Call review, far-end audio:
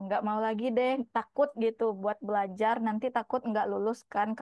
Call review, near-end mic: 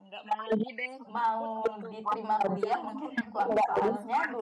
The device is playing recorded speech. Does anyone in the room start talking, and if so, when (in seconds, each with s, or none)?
1.1 s